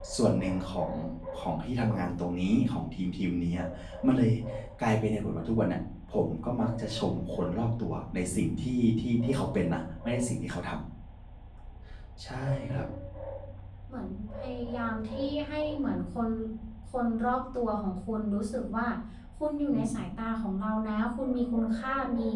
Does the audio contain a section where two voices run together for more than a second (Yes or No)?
No